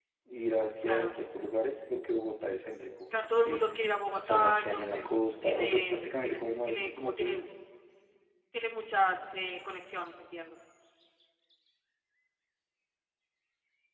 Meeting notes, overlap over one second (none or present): present